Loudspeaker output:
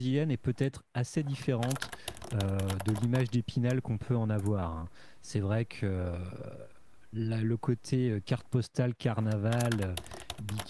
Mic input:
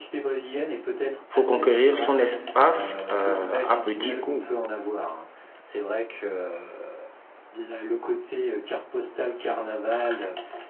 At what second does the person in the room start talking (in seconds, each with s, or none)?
1.3 s